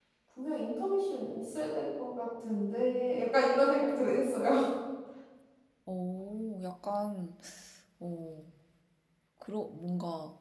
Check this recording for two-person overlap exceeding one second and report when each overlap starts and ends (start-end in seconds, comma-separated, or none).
none